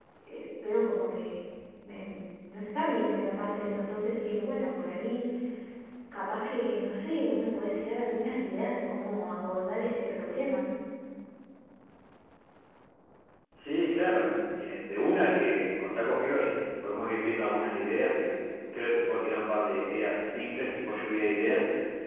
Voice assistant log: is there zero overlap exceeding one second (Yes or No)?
Yes